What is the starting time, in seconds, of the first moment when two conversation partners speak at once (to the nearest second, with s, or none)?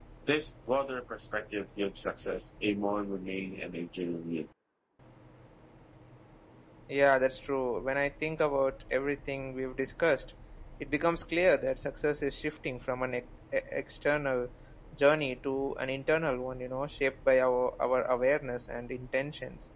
none